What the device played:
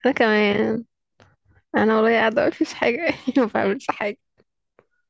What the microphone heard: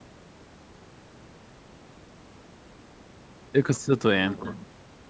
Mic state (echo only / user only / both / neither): user only